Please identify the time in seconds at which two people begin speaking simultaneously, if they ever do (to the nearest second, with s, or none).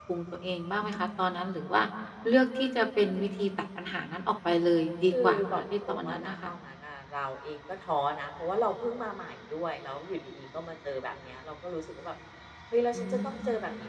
5 s